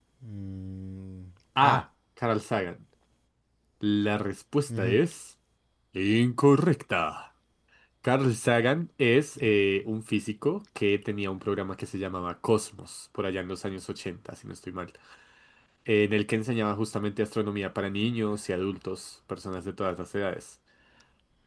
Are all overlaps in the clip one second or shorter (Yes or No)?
Yes